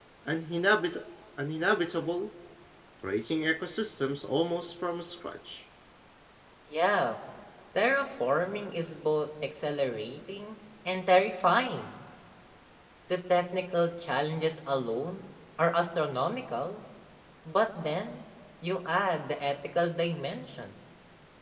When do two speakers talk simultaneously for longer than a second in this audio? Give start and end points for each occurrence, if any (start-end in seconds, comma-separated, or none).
none